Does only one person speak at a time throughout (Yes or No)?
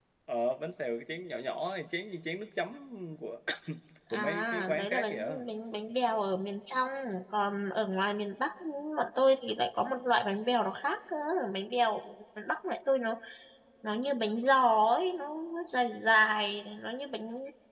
No